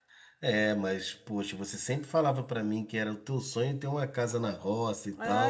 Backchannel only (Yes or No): No